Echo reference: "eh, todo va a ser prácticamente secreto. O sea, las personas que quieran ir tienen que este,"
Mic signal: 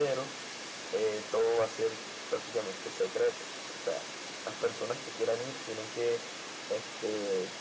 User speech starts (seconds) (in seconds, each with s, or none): none